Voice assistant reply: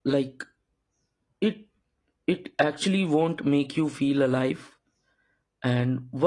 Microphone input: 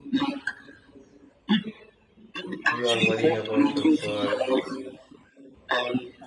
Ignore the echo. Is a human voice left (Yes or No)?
Yes